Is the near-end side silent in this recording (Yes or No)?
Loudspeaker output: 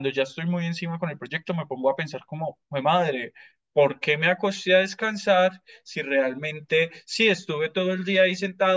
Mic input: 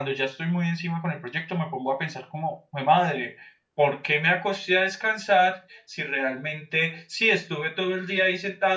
Yes